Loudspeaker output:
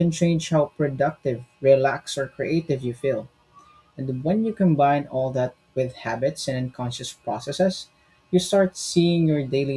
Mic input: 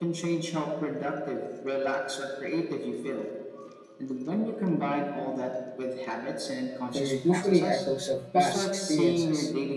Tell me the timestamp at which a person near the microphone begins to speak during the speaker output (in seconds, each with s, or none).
6.9 s